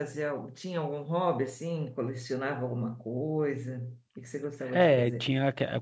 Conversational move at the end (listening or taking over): taking over